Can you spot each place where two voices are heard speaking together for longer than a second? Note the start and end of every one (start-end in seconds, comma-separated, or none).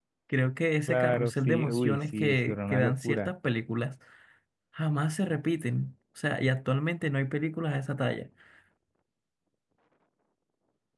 0.8-3.3